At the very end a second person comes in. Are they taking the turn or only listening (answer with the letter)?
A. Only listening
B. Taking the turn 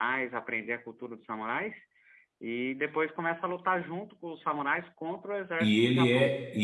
B